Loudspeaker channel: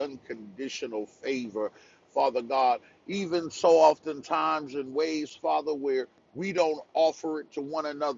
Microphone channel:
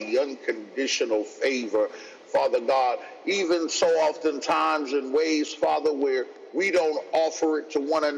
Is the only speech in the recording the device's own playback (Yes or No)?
Yes